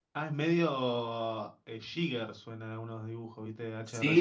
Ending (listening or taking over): taking over